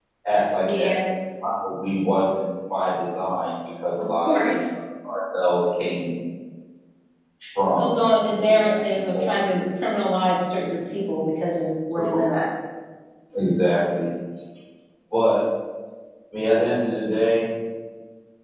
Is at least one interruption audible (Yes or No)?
Yes